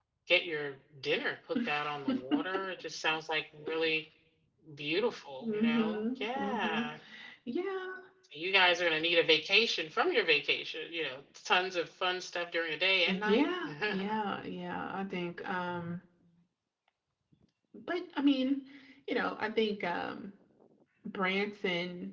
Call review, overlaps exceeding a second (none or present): present